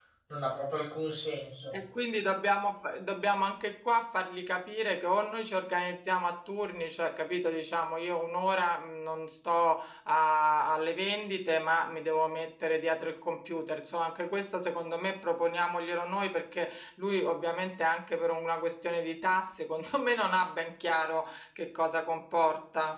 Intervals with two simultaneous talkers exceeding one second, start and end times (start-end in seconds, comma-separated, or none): none